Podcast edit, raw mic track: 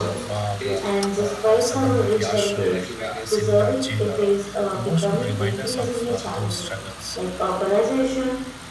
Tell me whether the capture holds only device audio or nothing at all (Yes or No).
No